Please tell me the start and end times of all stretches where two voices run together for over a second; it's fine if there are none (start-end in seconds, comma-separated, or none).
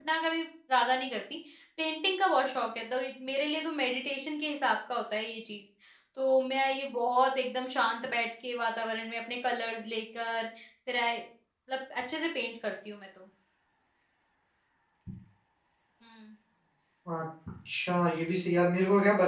none